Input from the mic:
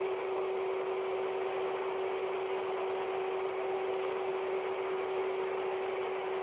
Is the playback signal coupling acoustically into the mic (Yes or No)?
No